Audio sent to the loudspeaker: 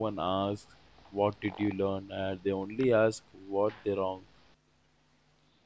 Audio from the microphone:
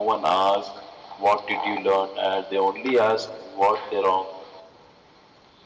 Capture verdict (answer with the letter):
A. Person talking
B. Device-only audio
B